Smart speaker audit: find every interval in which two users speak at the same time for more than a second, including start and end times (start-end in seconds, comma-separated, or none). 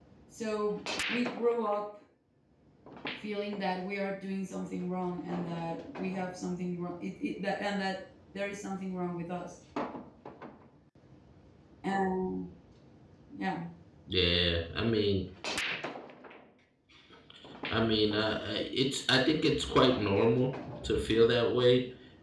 none